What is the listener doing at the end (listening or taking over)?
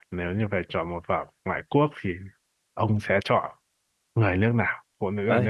taking over